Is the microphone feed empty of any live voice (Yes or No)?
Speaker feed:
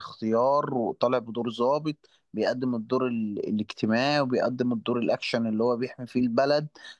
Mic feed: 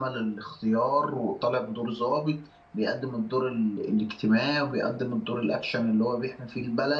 Yes